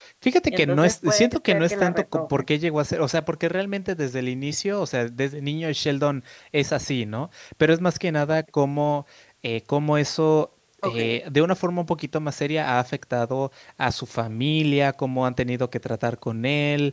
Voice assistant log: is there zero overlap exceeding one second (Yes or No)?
No